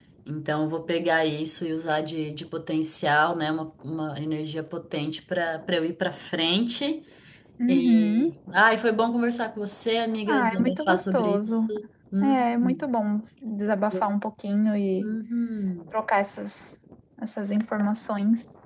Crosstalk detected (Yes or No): Yes